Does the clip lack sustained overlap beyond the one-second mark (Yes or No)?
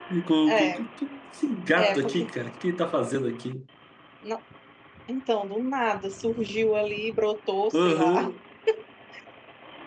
Yes